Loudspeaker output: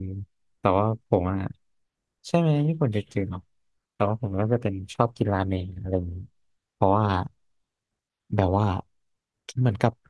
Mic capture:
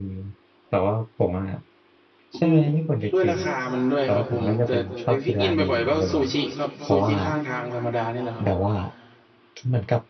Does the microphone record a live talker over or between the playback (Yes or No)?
Yes